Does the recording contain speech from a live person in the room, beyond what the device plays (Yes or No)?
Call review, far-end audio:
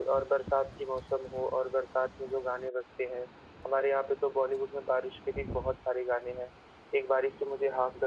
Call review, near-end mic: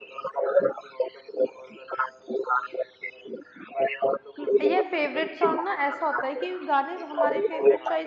Yes